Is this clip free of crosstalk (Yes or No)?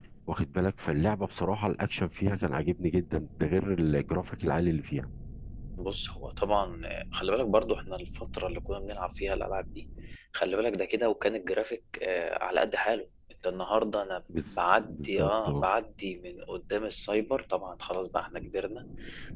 No